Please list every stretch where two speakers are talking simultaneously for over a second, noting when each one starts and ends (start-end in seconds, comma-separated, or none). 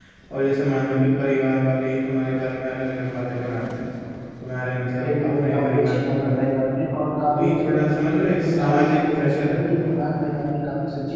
5.0-6.4, 8.4-9.9